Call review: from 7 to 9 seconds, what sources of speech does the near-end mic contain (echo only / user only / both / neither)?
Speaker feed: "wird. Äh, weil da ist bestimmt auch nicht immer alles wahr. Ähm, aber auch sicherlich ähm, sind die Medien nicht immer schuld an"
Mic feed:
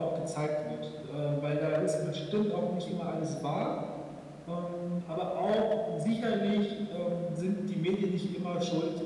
echo only